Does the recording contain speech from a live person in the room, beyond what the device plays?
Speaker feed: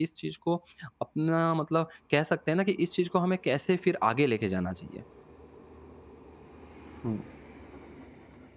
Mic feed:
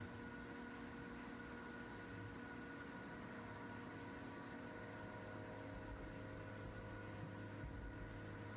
No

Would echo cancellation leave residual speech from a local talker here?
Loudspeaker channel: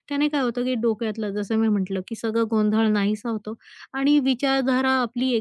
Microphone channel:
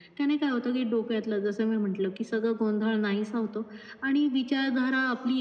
No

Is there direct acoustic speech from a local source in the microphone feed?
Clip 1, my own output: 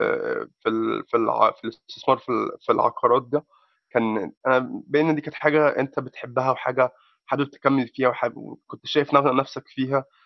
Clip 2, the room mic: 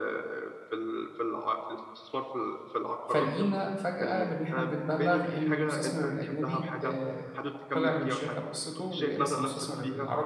Yes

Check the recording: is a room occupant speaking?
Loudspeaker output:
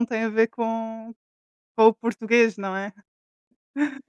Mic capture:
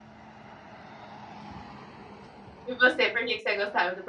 Yes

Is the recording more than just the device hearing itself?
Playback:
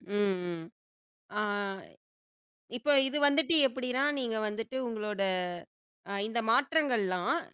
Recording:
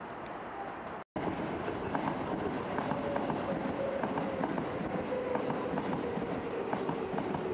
No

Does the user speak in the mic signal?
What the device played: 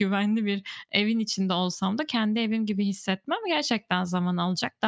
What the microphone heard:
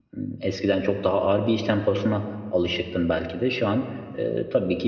Yes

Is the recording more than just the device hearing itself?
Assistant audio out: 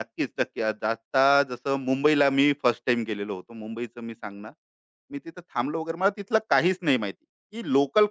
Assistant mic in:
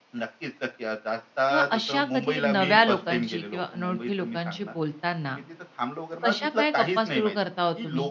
Yes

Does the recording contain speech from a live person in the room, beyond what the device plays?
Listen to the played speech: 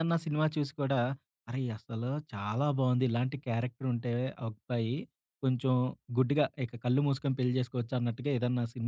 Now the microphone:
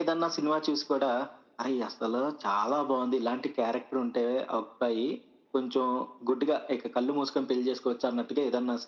No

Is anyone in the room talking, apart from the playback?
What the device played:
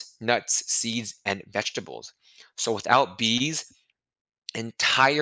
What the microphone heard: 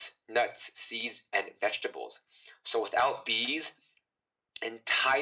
No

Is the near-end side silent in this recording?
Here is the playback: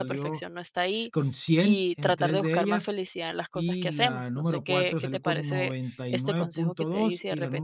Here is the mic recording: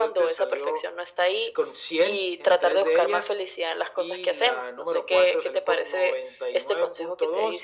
Yes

